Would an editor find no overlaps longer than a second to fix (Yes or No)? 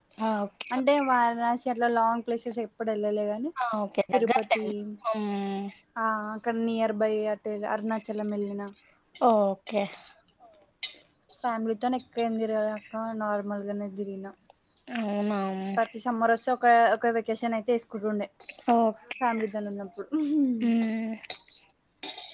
Yes